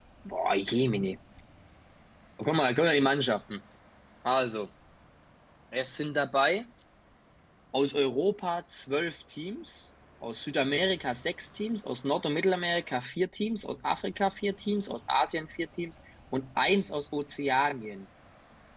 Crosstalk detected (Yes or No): No